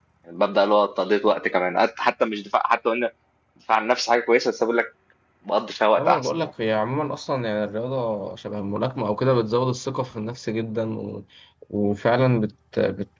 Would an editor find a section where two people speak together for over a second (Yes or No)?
No